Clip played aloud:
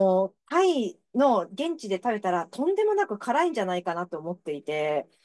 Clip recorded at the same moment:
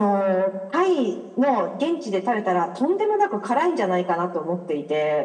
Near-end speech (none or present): none